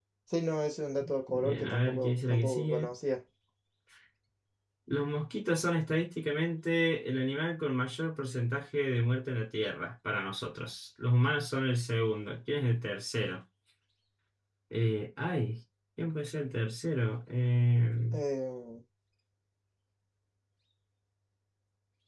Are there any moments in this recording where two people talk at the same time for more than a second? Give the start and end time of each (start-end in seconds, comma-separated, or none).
1.3-2.9